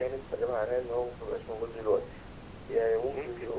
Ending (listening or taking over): listening